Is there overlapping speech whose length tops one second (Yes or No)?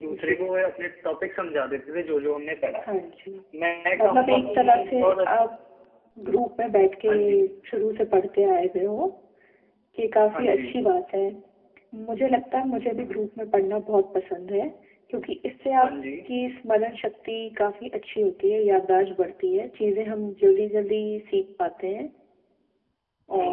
Yes